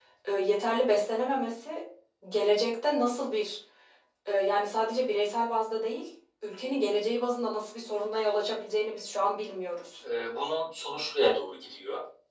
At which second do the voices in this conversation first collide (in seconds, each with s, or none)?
none